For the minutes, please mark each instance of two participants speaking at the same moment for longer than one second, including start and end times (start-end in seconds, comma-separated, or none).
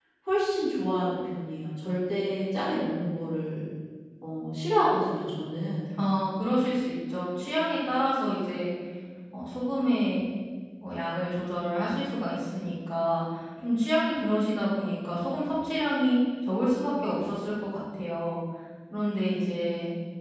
none